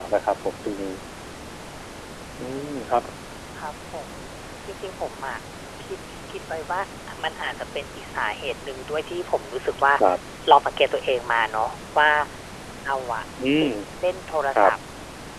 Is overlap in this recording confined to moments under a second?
Yes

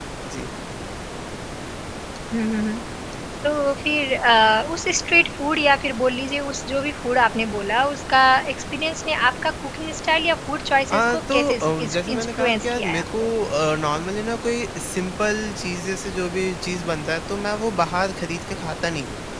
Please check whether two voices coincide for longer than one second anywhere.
Yes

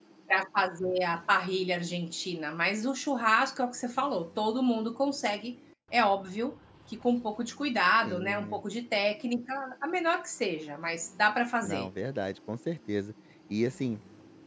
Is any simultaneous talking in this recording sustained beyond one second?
No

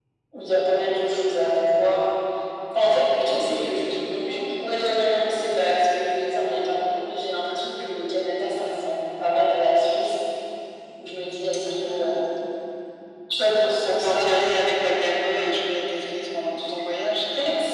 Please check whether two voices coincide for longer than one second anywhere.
Yes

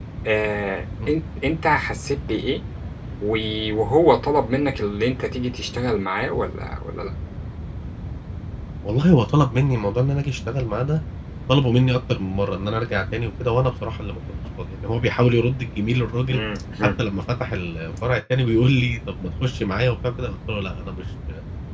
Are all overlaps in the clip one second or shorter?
Yes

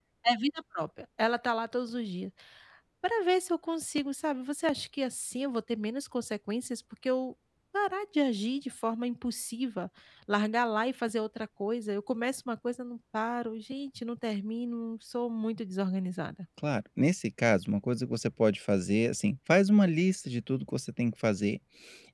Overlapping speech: No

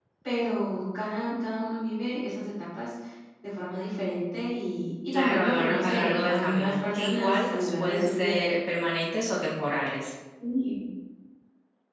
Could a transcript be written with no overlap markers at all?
No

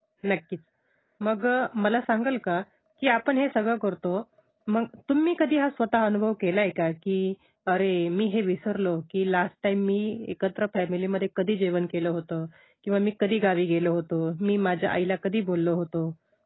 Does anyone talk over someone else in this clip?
No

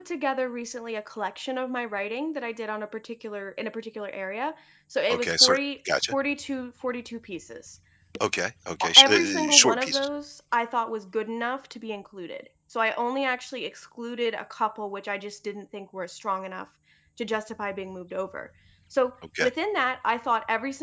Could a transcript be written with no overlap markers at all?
No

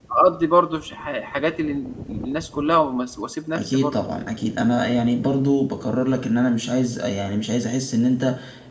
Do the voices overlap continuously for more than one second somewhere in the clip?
No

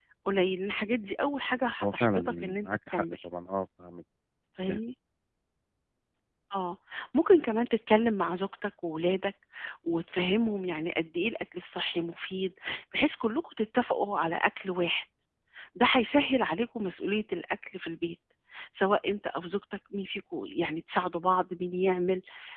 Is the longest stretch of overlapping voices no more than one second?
No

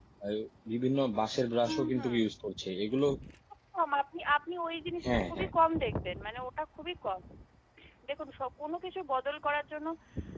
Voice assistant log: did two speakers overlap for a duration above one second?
No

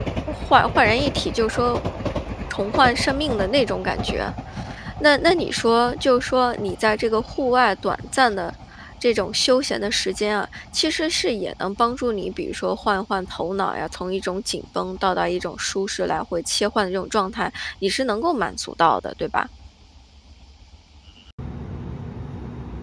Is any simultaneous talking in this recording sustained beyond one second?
No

